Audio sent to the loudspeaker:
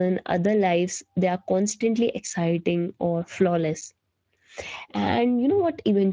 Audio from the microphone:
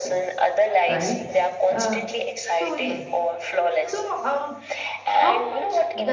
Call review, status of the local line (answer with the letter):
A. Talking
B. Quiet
A